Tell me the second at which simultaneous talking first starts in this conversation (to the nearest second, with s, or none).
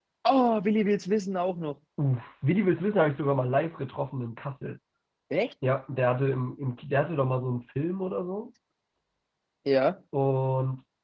none